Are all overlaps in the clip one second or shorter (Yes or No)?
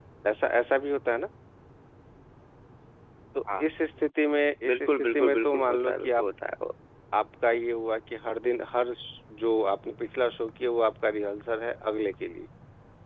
No